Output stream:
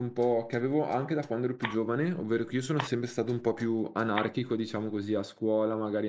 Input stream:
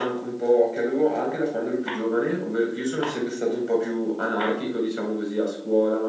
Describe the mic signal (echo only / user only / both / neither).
echo only